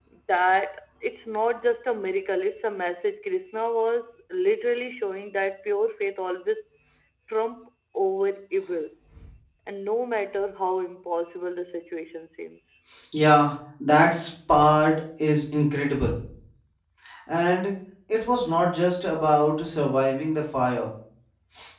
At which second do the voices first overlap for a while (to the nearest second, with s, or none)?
none